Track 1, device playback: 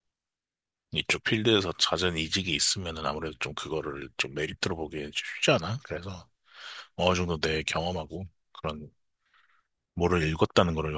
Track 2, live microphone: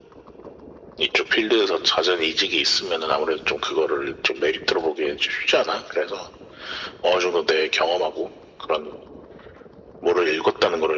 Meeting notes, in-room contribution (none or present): none